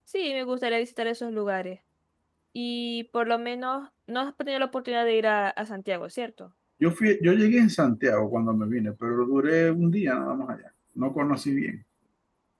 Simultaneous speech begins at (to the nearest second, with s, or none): none